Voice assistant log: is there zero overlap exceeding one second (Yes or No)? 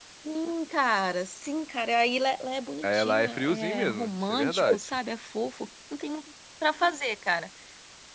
No